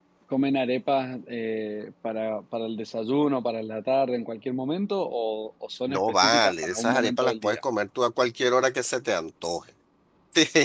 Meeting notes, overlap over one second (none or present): present